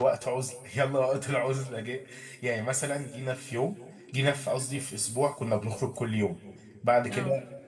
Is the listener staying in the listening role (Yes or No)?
Yes